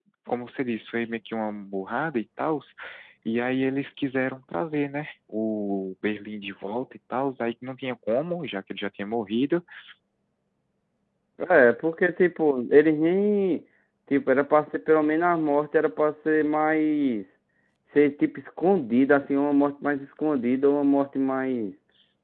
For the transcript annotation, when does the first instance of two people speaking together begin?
none

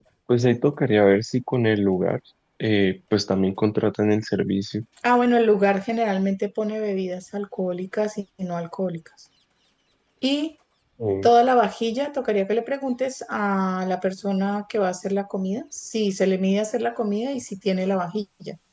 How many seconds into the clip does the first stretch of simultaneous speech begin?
none

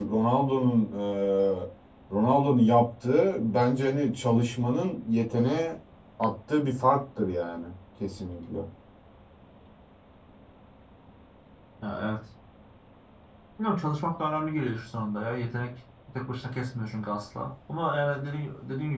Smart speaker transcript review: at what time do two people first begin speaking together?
none

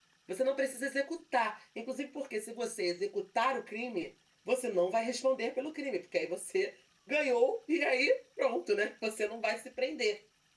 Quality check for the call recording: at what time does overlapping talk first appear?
none

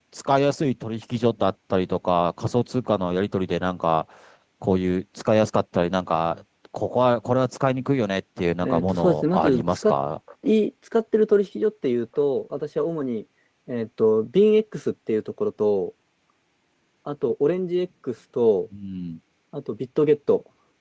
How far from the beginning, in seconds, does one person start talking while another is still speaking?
8.6 s

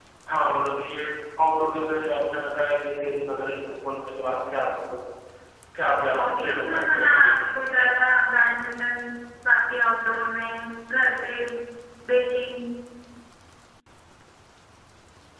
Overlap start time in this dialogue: 6.1 s

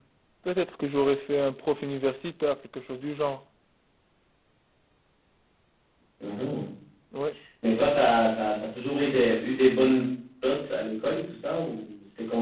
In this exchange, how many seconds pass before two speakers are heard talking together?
none

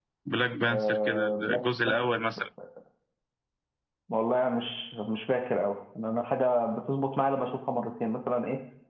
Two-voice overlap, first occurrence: 0.7 s

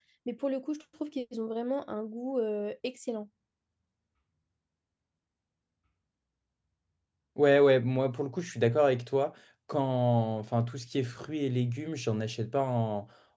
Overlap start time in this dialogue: none

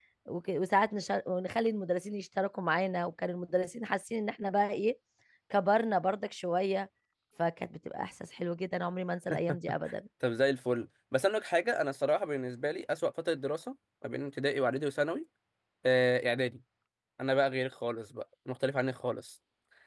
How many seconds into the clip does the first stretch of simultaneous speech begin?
none

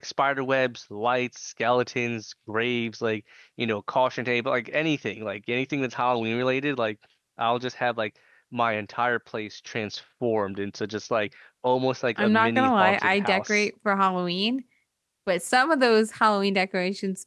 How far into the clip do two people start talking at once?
12.2 s

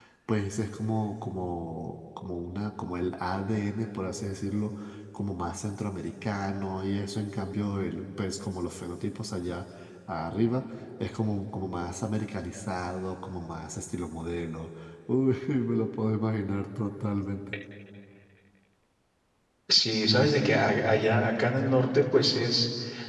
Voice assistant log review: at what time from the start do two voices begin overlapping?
none

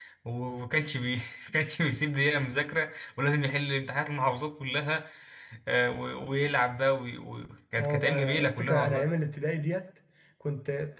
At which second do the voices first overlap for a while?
7.8 s

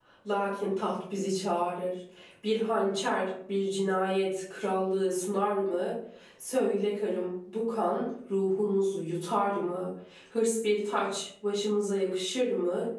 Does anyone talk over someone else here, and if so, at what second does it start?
none

